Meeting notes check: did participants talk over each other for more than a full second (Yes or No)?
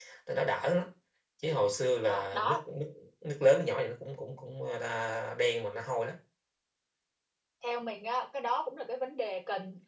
No